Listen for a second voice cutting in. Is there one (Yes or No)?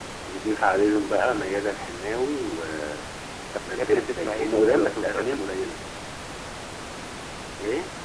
Yes